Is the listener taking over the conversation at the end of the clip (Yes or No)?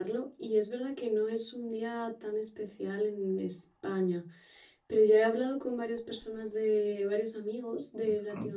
No